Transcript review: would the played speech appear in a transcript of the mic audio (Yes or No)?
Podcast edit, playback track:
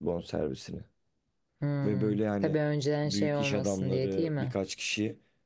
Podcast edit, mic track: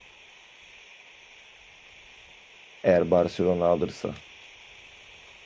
No